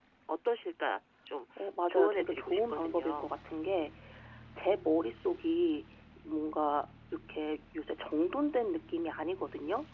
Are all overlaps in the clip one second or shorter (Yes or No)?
No